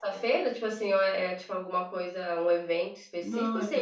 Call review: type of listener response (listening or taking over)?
taking over